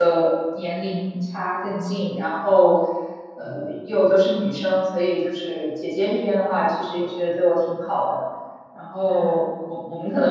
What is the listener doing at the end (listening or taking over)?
listening